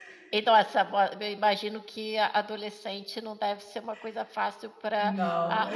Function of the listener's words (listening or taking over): listening